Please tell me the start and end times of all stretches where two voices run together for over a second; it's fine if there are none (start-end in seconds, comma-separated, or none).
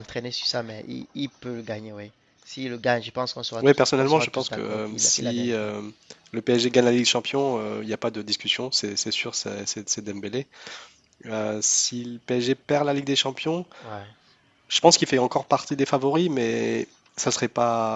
3.6-5.5